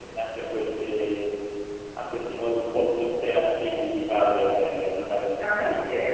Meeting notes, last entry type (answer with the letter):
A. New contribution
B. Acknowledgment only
A